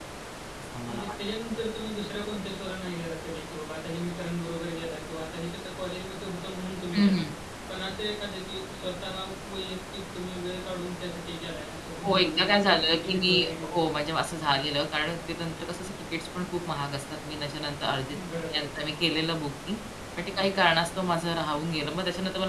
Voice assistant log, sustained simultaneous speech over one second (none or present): present